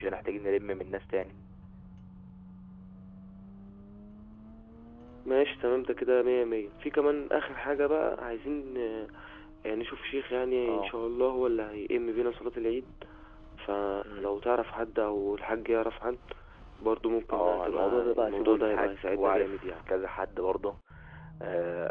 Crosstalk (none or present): present